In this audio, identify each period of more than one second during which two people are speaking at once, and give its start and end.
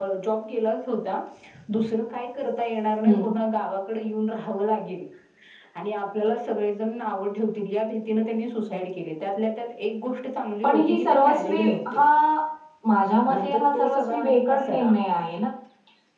10.6-12.0, 13.3-14.9

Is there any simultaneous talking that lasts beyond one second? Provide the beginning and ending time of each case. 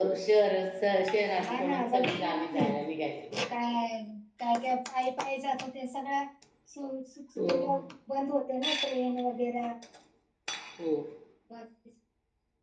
1.4-2.7

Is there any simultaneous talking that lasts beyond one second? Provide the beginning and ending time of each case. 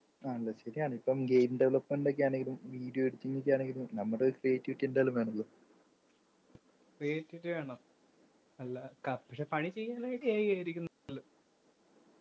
none

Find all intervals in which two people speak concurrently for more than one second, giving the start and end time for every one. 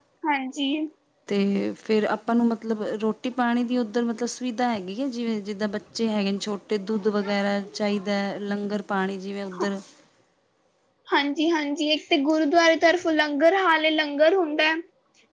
none

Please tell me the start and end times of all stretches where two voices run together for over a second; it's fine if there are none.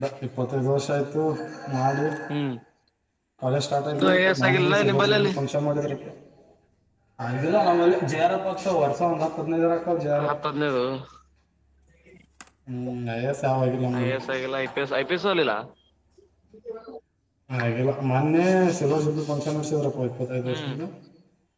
3.9-5.3

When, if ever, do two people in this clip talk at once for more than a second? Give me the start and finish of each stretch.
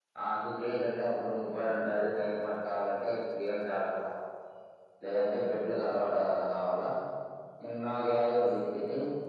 none

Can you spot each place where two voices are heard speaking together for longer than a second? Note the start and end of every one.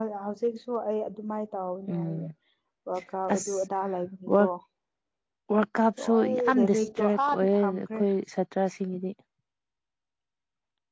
6.0-8.0

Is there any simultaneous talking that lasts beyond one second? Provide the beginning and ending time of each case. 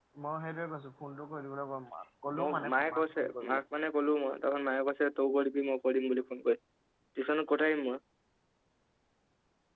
2.4-3.6

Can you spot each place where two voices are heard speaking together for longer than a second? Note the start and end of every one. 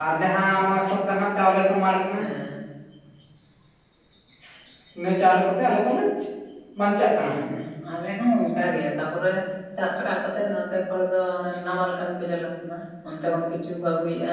none

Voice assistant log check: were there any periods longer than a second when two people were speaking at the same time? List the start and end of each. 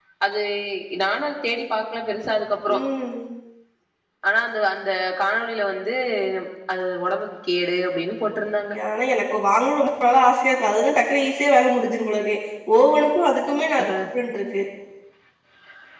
none

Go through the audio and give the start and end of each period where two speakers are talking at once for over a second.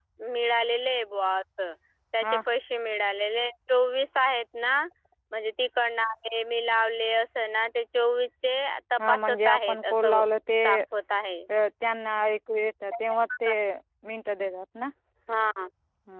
9.0-10.2

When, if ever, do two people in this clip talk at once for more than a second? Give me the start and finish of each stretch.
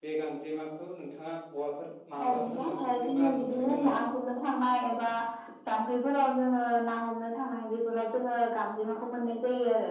2.2-4.0

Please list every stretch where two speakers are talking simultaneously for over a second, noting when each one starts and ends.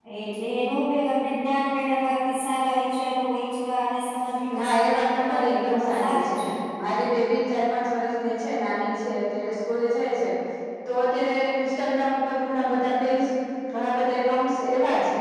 4.6-6.3

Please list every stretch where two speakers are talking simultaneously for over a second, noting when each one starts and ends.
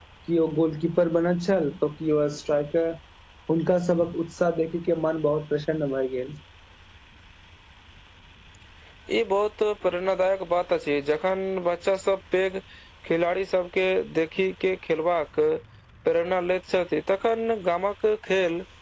none

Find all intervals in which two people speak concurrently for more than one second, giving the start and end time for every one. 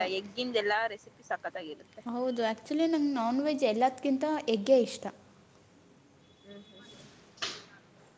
none

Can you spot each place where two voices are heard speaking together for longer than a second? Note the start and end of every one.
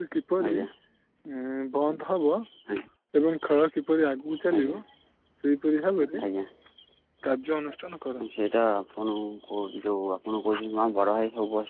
none

